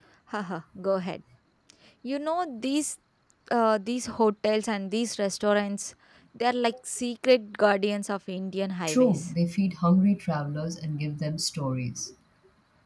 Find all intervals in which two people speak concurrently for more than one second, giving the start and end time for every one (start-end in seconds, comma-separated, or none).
none